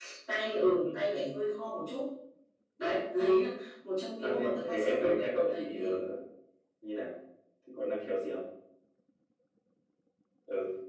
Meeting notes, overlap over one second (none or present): present